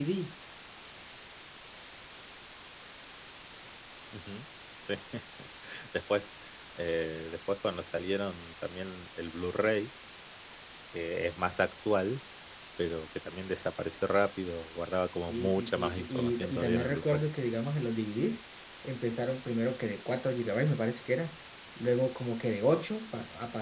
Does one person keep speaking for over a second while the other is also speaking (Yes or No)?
Yes